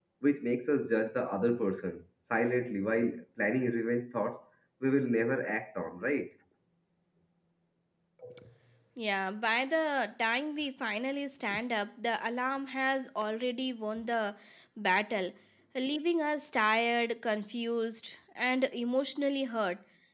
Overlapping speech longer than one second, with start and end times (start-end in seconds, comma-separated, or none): none